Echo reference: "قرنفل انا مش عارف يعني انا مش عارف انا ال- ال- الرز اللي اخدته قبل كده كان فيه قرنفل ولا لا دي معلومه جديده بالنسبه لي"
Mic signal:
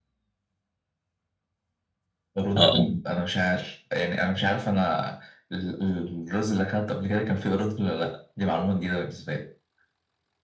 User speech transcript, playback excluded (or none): اه آه.